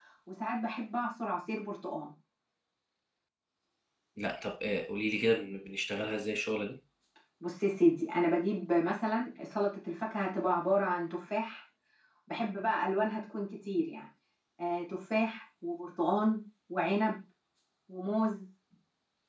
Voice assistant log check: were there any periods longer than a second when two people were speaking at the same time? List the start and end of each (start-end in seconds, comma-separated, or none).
none